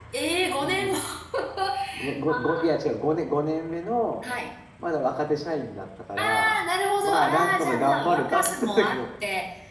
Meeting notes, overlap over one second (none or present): present